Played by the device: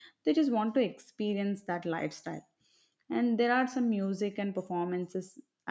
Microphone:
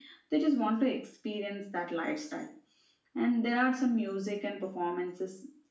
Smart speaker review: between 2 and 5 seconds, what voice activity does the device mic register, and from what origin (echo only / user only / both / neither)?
echo only